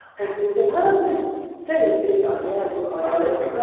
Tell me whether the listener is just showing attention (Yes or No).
Yes